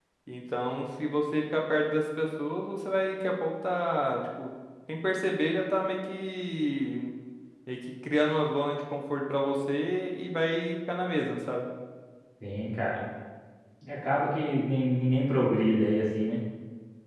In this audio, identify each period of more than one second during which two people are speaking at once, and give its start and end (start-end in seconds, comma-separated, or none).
none